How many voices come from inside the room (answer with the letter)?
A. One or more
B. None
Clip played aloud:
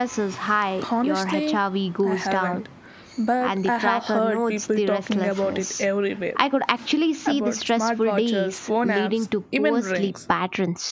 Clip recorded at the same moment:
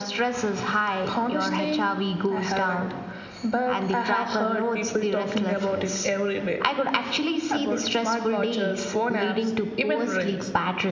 B